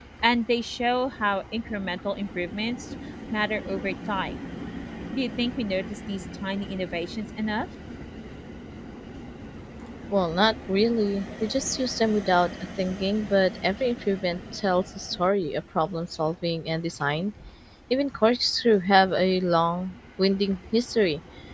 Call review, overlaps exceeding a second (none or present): none